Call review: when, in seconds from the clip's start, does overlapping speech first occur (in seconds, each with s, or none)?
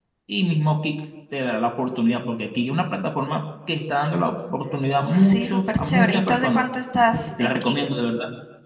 5.0 s